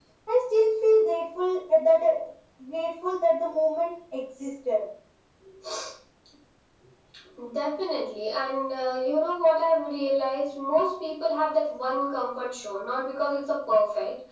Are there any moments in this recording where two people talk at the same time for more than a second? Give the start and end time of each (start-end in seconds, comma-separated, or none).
none